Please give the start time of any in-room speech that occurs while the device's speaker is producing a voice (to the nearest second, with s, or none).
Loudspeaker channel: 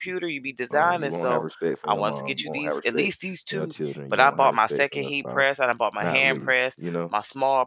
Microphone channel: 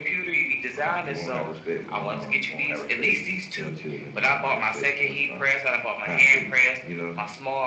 none